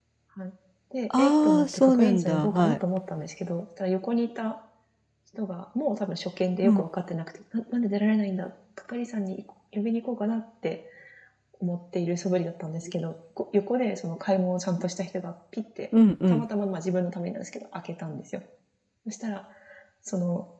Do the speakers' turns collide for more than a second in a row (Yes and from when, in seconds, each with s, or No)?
Yes, from 1.2 s